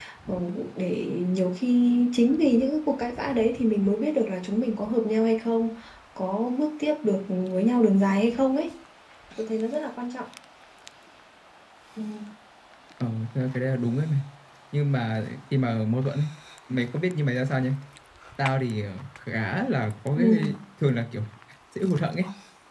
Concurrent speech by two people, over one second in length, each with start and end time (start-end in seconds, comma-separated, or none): none